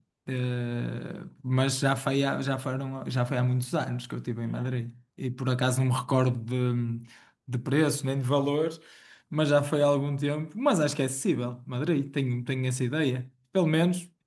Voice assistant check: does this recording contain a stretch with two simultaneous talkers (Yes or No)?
No